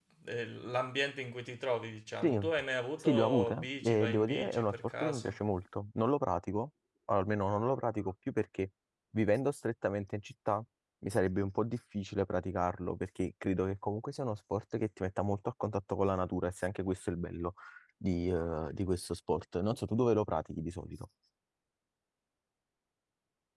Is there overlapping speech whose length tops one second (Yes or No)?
Yes